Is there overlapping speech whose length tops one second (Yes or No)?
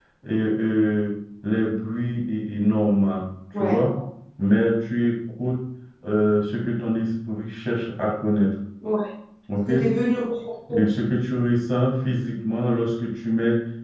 No